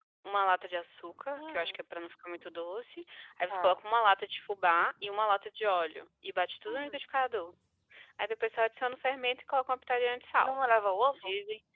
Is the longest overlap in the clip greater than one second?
No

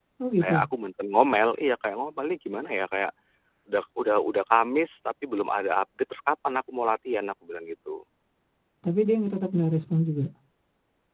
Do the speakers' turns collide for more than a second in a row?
No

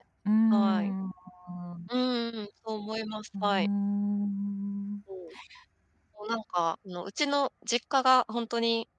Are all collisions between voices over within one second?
Yes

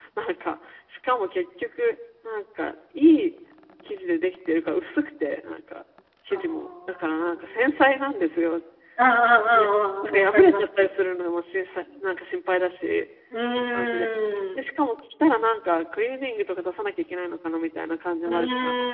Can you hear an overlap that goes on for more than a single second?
Yes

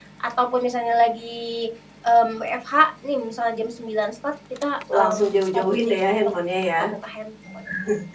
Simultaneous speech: Yes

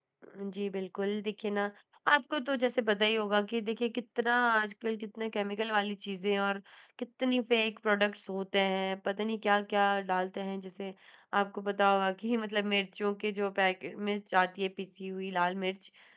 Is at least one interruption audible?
No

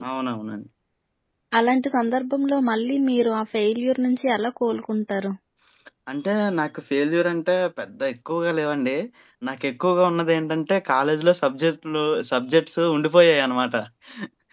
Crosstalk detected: No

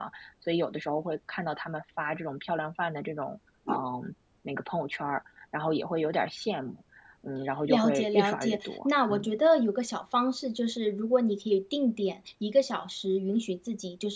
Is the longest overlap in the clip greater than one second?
Yes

